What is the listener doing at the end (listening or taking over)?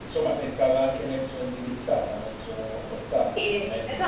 taking over